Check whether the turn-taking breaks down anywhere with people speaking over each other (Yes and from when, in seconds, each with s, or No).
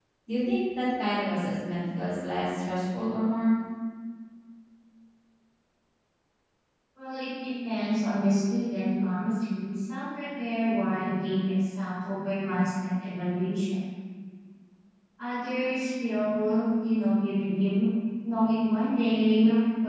No